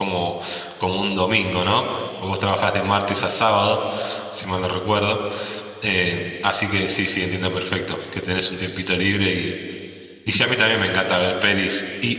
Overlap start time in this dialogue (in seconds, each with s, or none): none